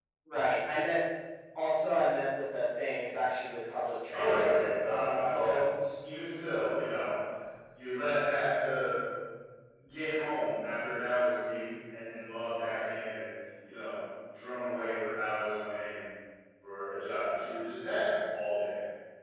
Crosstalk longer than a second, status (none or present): present